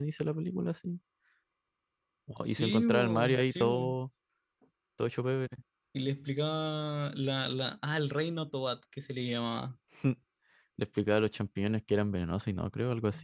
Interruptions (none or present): present